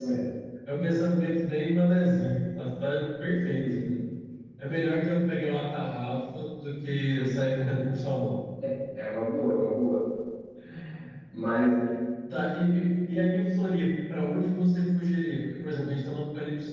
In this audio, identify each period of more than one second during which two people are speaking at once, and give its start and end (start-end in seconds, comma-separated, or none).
none